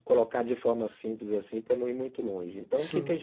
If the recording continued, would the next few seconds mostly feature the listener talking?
No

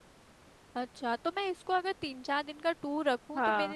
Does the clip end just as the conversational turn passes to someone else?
No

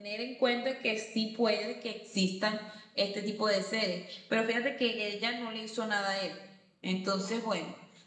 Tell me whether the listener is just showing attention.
Yes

